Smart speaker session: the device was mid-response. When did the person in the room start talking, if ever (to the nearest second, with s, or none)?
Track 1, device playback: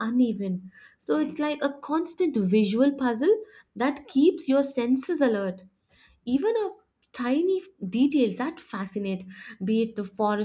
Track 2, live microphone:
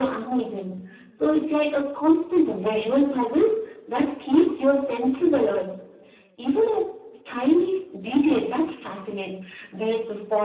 none